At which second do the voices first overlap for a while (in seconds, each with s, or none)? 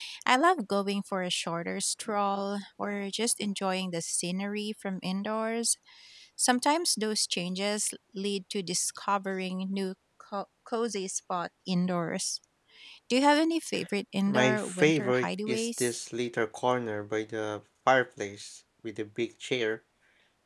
14.3 s